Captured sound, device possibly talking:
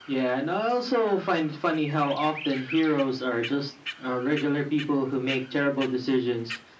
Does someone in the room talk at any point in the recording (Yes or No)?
No